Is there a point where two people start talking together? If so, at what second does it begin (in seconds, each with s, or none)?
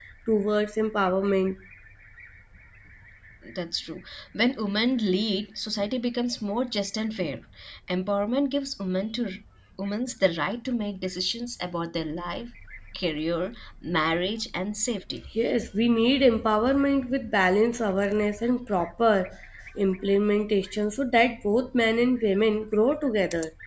none